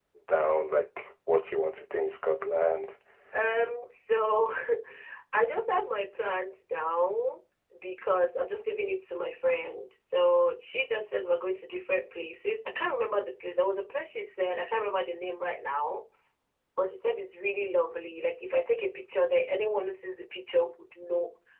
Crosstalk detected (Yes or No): No